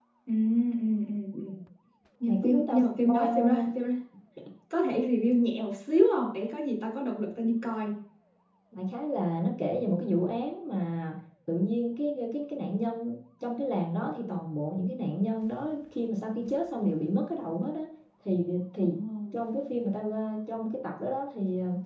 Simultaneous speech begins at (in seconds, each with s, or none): 2.3 s